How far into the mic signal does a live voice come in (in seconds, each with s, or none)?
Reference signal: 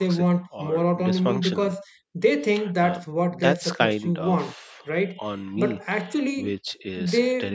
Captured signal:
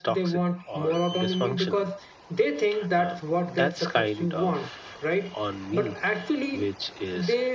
none